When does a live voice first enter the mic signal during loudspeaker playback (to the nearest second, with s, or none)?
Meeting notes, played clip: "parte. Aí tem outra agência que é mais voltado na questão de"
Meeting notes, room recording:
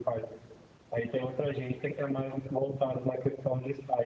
none